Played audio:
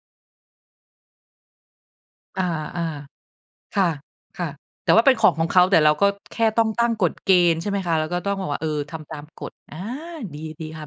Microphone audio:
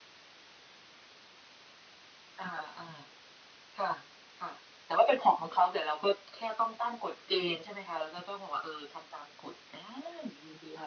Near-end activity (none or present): none